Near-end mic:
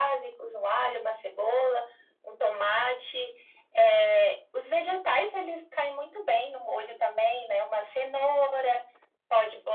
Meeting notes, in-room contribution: none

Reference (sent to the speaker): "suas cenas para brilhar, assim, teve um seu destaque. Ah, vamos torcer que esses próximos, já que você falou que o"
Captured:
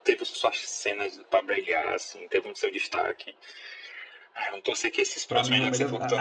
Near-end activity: present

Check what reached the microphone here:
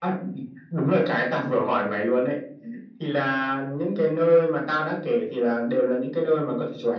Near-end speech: none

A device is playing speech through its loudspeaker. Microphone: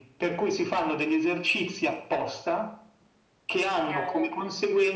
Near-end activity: present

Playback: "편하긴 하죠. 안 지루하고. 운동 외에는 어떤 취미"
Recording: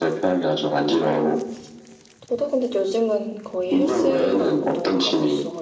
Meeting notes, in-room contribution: present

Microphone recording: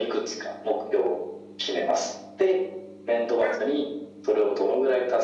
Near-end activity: none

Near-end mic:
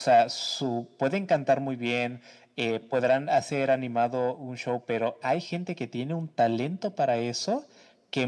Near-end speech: none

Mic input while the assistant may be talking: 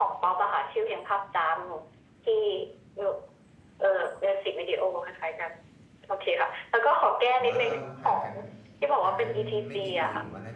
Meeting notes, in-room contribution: present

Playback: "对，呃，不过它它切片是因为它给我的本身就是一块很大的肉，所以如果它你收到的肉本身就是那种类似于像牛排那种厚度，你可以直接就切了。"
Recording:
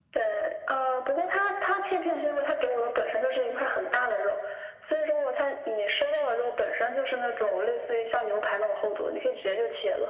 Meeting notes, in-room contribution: none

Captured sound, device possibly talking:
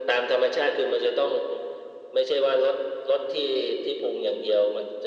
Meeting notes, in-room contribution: none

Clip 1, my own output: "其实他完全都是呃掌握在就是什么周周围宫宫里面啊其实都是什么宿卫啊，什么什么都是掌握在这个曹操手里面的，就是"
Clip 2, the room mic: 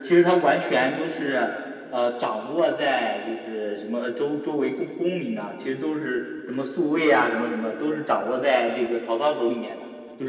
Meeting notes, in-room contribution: none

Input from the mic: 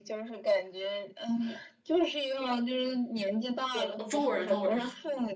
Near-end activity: present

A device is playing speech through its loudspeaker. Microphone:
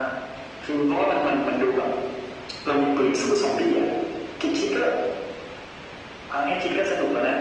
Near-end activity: none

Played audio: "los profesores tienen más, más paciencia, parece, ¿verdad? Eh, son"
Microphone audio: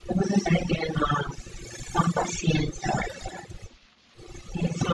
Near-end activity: none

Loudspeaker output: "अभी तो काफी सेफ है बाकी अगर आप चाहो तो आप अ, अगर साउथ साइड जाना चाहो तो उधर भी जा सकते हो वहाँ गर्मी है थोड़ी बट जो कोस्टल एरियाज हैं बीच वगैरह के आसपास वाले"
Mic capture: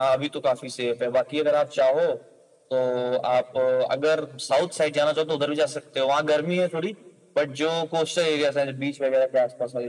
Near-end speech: none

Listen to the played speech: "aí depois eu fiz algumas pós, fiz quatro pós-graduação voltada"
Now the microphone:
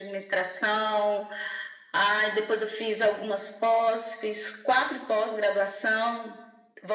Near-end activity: none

